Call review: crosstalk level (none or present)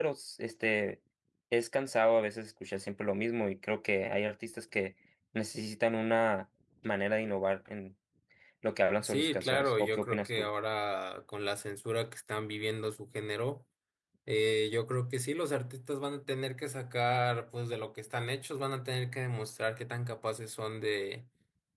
present